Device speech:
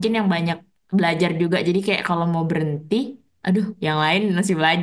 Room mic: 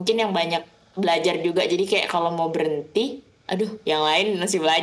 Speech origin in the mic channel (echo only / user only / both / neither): echo only